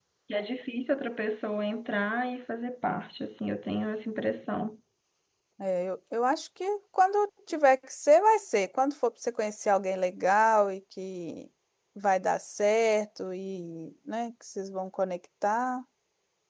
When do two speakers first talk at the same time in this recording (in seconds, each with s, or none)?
none